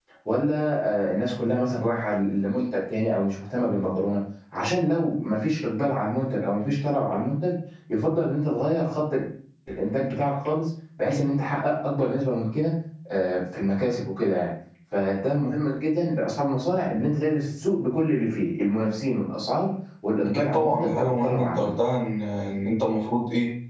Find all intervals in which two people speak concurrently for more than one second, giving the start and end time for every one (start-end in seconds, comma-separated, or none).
20.2-21.7